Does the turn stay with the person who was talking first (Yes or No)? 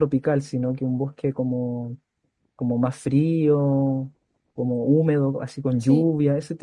Yes